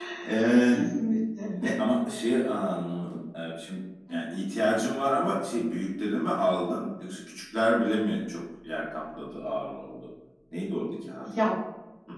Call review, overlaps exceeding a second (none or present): none